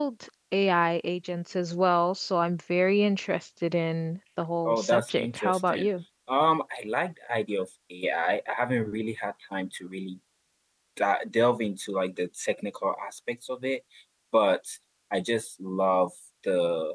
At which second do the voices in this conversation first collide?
5 s

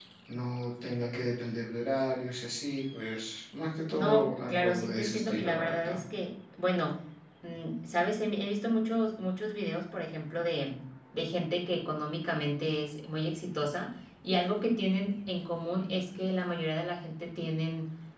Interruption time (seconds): 4 s

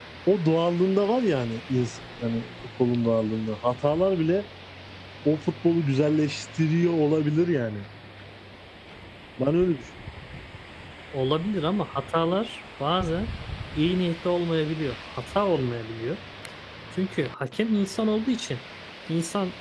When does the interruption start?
none

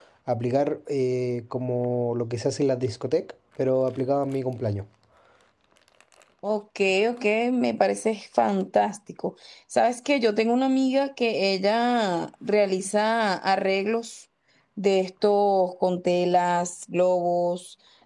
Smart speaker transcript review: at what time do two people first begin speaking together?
none

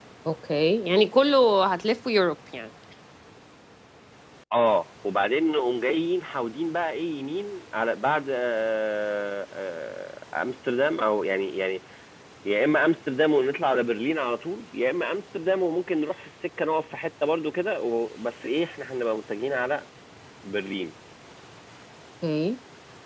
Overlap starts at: none

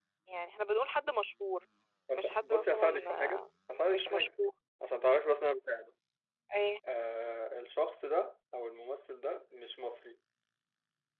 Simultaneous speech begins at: 2 s

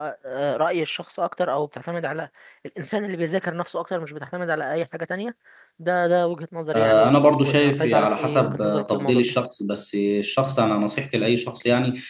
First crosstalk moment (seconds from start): 7 s

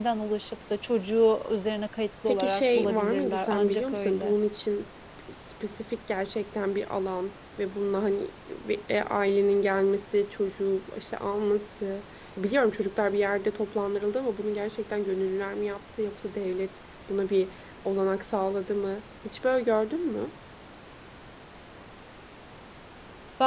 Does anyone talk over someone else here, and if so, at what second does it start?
2 s

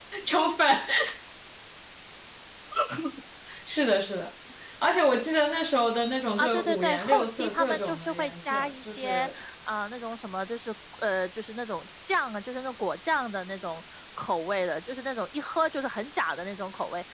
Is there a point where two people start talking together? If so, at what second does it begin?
6 s

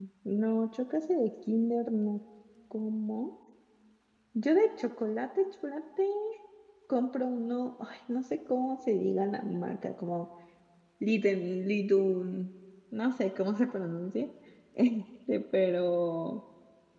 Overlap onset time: none

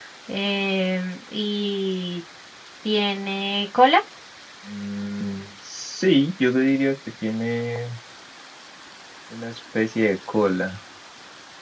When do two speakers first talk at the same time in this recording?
none

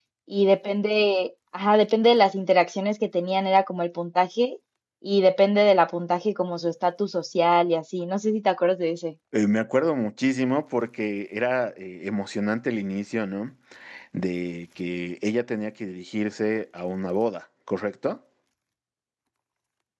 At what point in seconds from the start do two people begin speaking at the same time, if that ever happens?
none

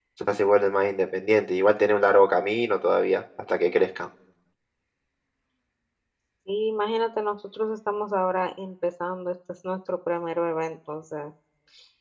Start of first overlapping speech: none

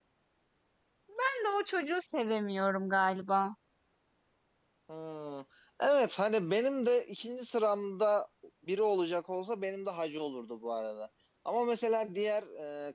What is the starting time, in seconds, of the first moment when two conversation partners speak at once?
none

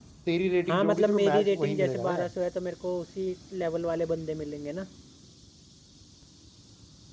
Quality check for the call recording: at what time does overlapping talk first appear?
1 s

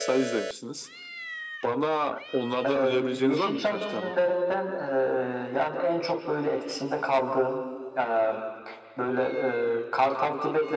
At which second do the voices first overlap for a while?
3 s

